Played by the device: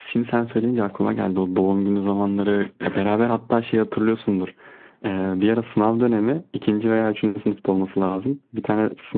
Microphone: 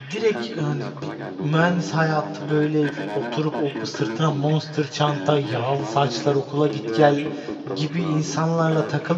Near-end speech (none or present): present